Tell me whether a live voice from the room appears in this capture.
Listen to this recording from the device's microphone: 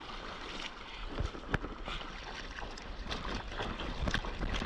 No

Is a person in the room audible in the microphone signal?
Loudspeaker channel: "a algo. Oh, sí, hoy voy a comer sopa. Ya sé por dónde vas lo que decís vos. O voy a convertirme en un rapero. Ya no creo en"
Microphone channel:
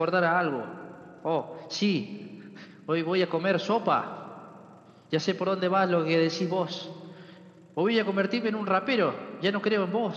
No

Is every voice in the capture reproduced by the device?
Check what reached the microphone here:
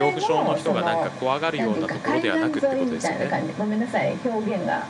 No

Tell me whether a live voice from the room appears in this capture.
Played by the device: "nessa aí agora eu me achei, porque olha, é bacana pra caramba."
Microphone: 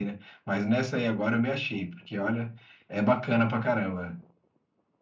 No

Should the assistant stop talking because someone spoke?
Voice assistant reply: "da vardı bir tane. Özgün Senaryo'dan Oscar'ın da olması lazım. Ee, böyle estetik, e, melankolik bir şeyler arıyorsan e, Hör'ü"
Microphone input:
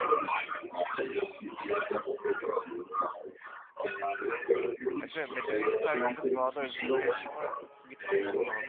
Yes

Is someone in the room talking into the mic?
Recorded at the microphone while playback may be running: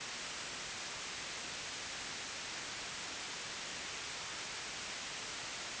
No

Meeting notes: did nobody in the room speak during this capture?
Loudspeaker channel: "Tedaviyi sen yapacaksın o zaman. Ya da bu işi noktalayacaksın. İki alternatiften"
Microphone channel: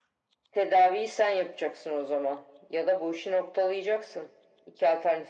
Yes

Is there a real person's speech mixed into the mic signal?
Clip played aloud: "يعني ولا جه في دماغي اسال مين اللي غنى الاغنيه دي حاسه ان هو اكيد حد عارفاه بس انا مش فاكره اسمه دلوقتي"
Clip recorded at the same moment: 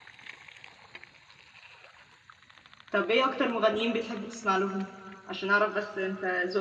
Yes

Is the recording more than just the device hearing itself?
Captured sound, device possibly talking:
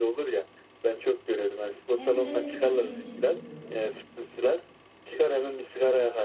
Yes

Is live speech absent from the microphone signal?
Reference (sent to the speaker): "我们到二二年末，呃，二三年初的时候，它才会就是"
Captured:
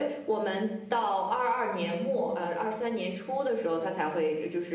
Yes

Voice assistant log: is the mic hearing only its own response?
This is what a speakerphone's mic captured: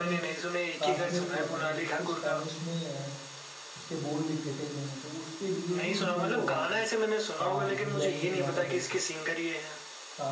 No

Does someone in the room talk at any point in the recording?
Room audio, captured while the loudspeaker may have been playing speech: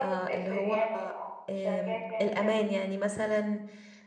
Yes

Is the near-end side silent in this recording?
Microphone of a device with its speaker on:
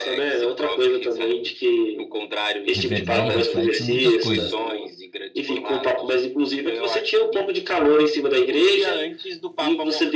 No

